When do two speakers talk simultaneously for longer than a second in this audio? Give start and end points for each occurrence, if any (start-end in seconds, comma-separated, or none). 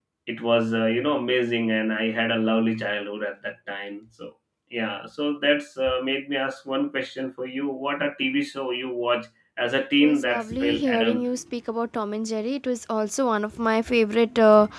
10.0-11.3